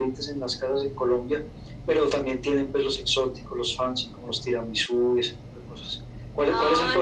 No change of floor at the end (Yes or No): Yes